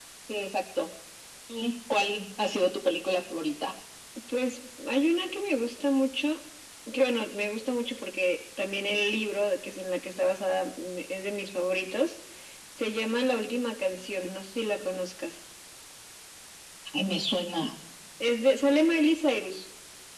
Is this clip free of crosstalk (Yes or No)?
Yes